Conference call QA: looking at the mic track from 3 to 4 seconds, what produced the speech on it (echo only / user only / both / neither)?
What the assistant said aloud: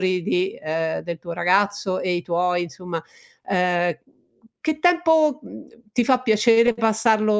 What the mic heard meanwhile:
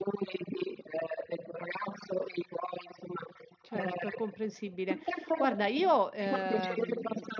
both